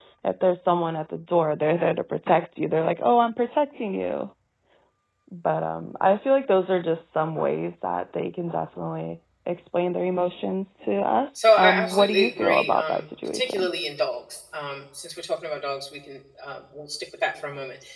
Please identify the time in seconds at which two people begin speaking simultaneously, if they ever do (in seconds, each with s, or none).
11.3 s